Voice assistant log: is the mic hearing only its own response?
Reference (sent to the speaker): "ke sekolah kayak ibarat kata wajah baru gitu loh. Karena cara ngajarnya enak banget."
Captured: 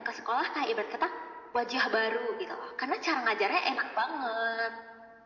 Yes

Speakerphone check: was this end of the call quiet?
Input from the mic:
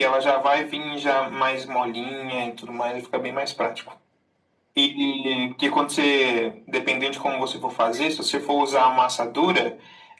Yes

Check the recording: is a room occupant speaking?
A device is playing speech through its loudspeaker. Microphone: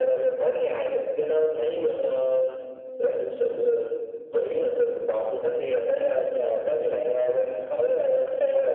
No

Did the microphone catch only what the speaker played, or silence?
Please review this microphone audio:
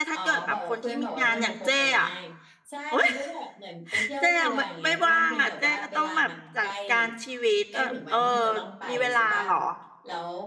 No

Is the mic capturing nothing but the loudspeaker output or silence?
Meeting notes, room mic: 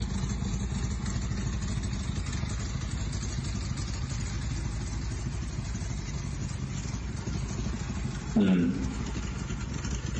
No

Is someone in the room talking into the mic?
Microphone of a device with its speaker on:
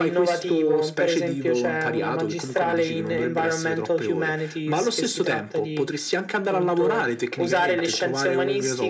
No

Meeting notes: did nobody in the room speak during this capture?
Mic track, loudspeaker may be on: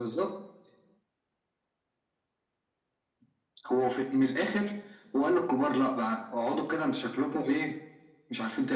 Yes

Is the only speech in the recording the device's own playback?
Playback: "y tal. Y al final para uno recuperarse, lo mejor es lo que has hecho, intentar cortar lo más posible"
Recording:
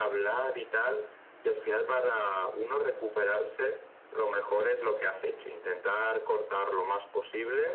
Yes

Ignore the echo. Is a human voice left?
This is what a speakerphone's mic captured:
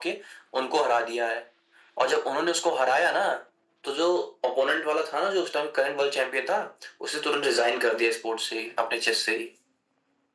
No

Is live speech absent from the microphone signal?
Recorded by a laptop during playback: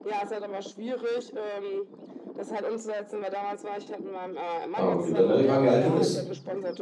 No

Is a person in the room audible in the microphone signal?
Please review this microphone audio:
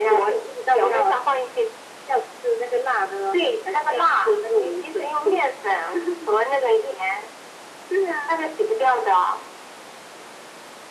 No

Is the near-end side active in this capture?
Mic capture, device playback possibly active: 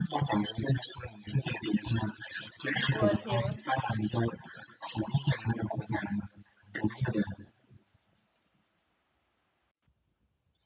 Yes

